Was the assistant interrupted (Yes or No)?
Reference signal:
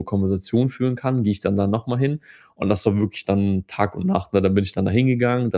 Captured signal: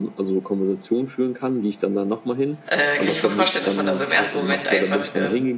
Yes